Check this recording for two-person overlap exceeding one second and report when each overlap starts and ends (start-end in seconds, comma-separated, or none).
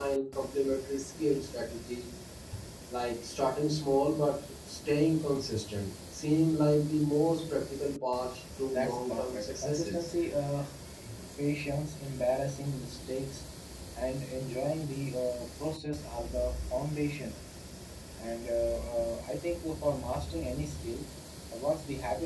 8.7-10.1